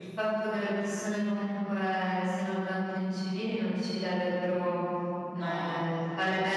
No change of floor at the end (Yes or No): Yes